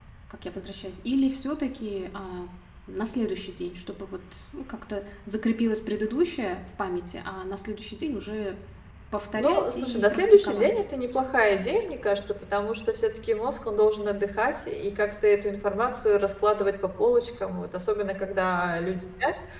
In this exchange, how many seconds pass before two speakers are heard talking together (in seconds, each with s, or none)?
9.4 s